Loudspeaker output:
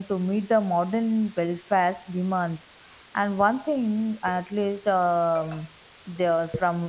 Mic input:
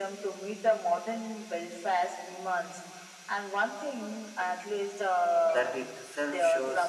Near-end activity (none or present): present